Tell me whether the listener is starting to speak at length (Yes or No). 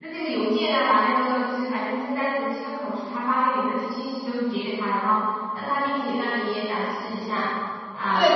Yes